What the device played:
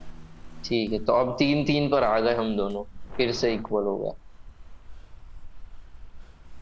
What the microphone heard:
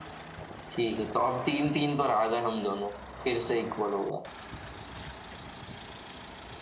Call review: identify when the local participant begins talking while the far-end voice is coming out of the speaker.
none

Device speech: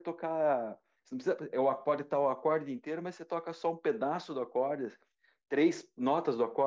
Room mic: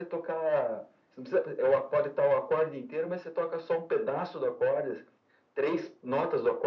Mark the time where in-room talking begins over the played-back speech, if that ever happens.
none

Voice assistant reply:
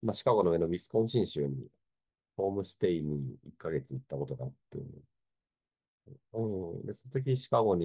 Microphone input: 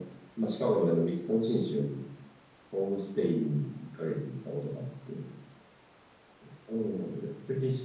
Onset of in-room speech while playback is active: none

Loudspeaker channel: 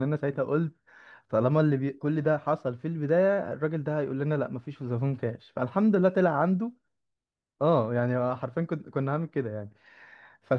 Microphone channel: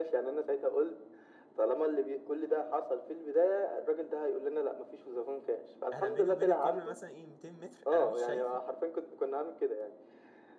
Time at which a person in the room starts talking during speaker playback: 5.9 s

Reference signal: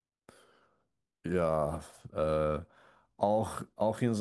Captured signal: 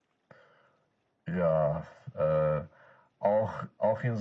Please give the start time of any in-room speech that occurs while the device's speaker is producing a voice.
none

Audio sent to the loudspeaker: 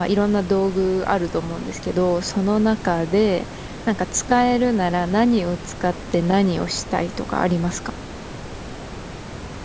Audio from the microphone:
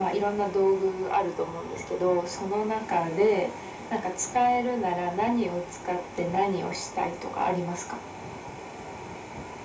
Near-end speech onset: none

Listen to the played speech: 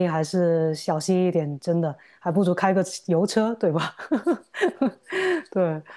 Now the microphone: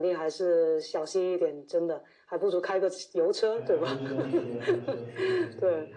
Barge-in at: 3.5 s

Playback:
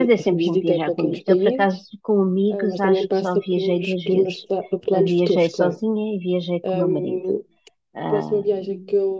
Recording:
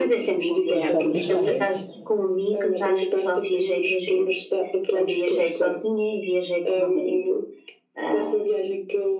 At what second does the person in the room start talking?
0.7 s

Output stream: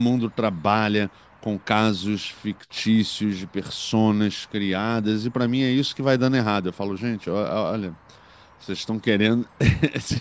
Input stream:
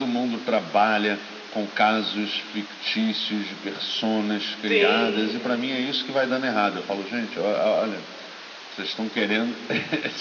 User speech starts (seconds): 4.7 s

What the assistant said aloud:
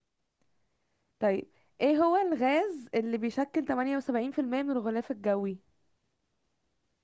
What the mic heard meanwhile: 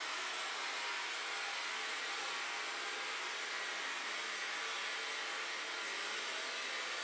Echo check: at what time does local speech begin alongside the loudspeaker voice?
none

